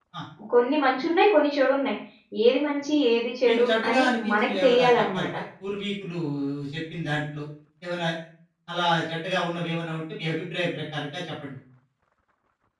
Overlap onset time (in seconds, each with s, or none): 3.4 s